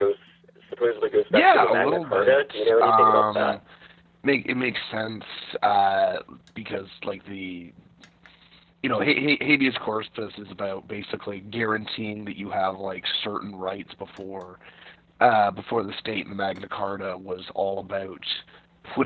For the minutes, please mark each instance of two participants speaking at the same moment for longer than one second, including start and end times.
1.3-3.6

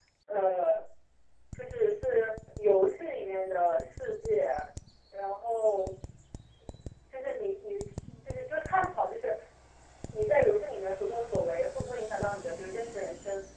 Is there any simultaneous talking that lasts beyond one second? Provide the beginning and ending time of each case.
none

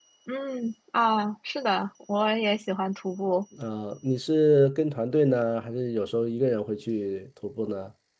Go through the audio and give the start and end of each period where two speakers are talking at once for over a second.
none

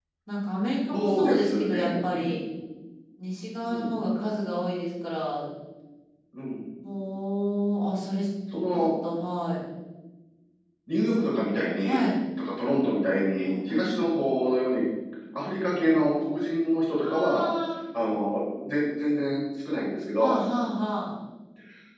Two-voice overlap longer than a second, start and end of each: 0.9-2.4

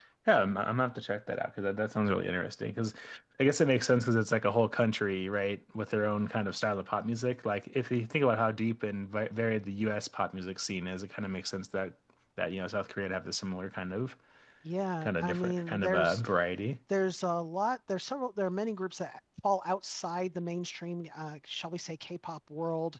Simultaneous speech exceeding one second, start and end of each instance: 15.0-16.2

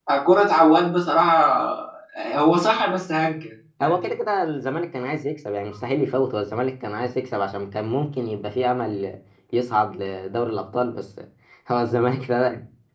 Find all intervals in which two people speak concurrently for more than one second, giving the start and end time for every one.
none

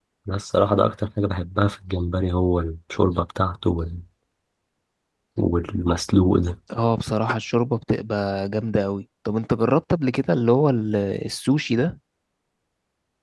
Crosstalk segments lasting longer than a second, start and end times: none

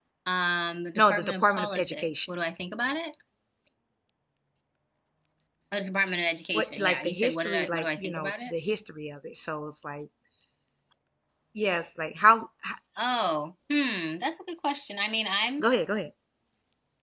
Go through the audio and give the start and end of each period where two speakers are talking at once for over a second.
0.9-2.3, 6.5-8.5

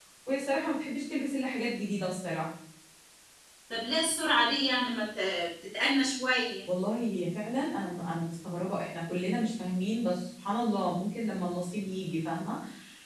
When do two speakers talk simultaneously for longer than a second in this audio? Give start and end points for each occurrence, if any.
none

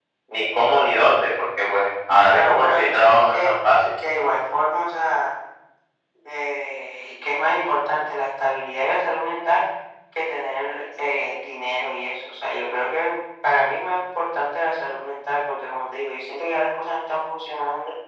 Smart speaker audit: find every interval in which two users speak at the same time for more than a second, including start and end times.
2.3-3.5

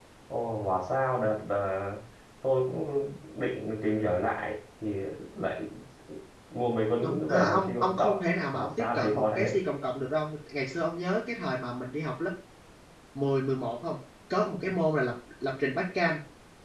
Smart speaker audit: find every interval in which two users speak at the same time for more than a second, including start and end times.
7.0-9.5

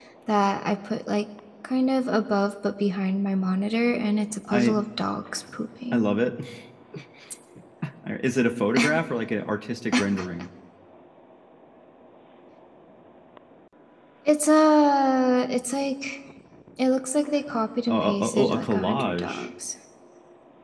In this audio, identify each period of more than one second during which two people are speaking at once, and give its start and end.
17.9-19.5

